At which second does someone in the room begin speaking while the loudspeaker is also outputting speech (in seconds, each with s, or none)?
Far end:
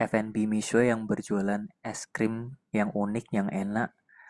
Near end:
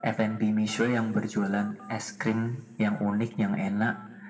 none